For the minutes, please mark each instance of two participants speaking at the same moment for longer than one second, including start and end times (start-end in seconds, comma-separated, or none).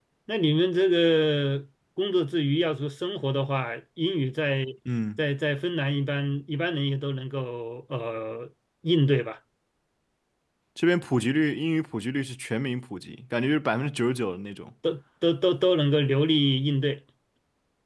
none